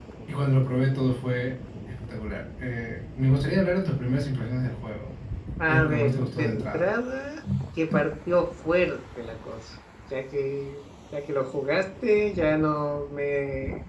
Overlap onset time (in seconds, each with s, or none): 5.7 s